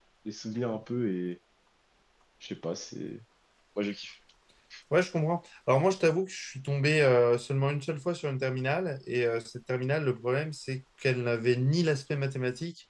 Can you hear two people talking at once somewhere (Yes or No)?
No